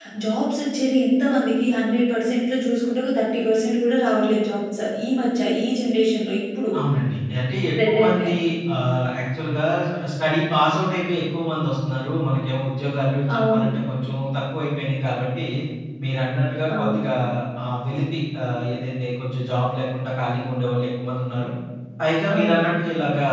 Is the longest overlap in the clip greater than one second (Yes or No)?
No